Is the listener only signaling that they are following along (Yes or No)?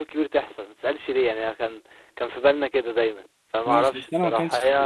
No